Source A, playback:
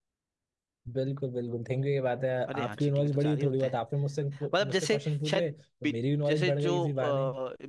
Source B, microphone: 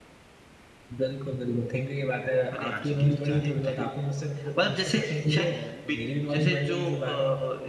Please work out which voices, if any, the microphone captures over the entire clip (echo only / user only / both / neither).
both